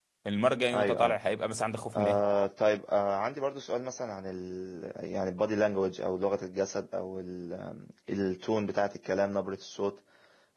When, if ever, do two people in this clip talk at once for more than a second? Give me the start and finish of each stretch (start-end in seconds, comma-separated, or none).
none